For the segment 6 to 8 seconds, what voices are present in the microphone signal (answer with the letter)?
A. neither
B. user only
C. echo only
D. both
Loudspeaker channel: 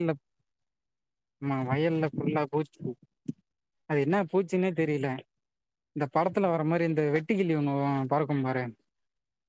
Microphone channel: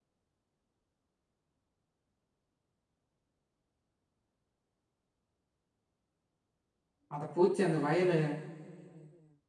B